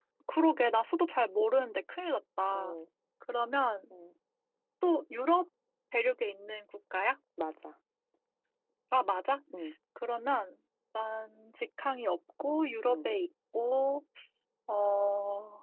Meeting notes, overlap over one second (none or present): none